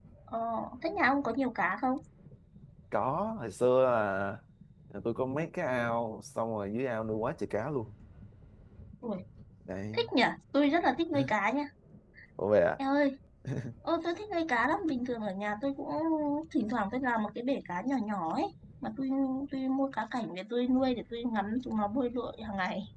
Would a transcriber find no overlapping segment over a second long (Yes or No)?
Yes